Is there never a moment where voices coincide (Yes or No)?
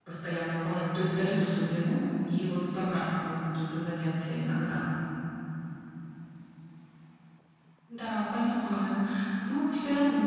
Yes